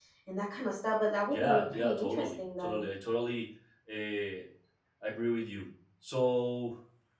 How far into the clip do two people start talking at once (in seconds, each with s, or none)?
1.3 s